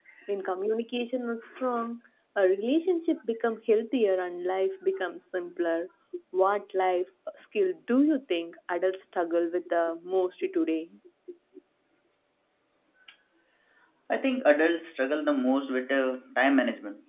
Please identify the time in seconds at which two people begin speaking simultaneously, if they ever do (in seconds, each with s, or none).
none